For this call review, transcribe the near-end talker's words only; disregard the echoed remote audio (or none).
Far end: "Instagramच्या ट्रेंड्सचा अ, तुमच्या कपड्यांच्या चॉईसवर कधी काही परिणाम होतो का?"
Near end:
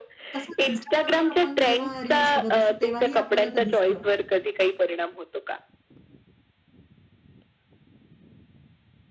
तसंच instagramवर आपण जेव्हा रील्स बघत असतो, तेव्हाही आपल्याला ते दिसतं,